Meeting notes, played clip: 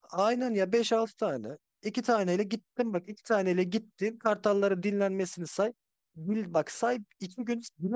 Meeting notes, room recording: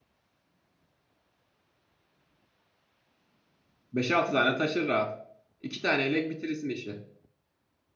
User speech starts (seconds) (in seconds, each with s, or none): 3.9 s